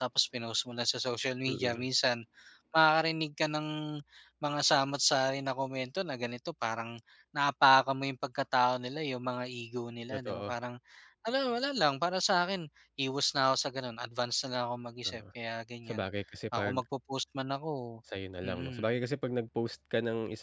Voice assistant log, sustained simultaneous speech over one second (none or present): none